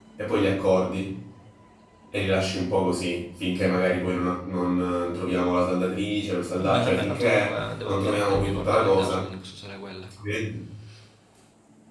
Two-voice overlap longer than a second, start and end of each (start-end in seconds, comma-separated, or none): 6.6-9.2